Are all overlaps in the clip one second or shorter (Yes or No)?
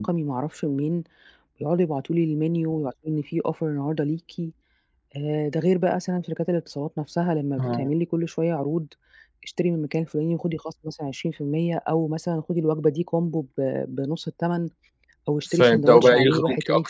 No